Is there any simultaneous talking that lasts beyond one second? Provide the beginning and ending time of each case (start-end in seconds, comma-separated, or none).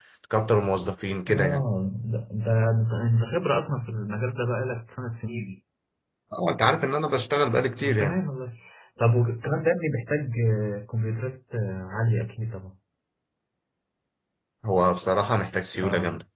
none